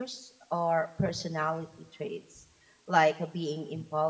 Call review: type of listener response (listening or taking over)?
listening